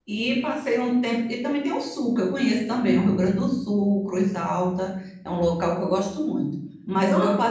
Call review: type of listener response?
listening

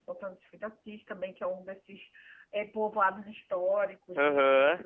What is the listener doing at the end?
listening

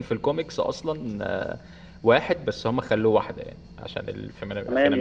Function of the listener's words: taking over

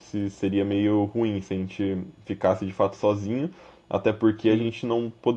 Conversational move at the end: listening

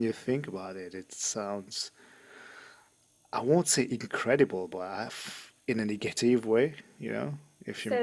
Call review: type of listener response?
taking over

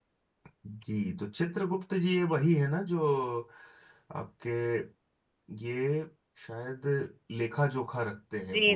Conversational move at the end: taking over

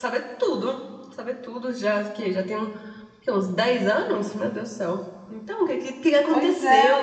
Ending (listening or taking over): taking over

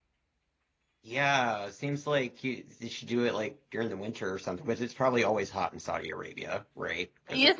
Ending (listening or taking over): taking over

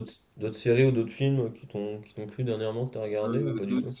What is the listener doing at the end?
taking over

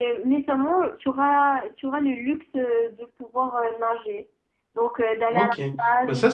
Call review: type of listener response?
taking over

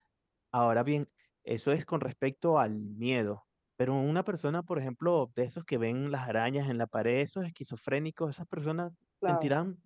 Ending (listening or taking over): listening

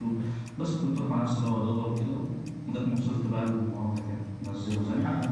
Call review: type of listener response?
listening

